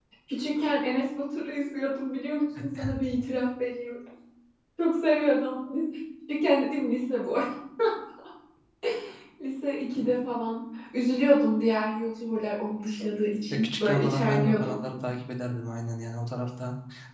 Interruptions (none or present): present